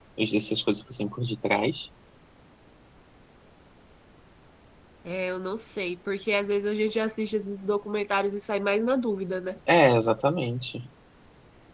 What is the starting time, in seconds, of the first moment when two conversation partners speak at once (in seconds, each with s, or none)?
none